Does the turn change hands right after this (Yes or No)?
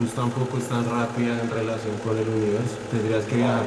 No